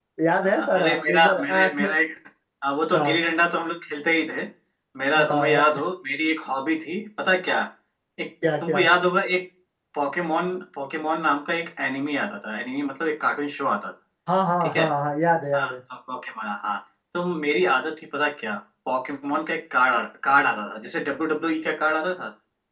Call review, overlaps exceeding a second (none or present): present